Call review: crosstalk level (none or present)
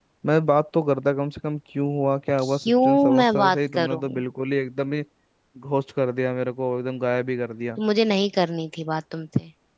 present